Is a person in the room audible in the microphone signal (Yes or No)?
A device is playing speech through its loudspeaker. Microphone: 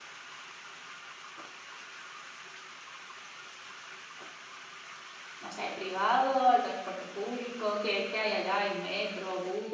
Yes